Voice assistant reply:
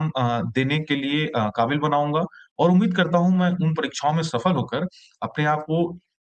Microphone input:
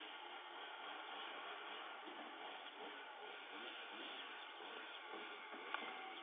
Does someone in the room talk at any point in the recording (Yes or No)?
No